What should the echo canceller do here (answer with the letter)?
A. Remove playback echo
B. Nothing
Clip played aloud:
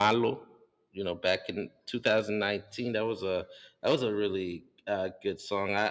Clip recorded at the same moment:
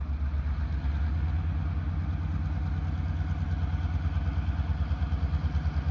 B